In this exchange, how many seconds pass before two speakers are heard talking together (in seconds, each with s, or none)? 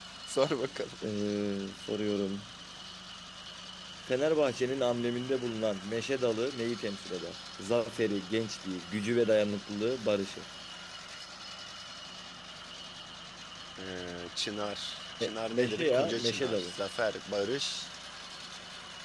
15.2 s